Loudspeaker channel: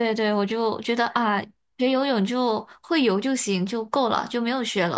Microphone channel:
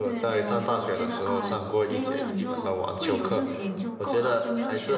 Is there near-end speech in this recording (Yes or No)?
Yes